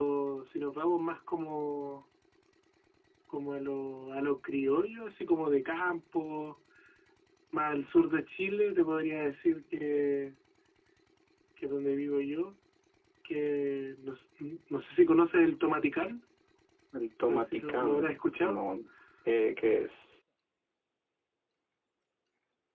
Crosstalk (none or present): present